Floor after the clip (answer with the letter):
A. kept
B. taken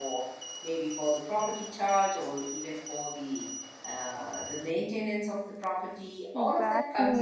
B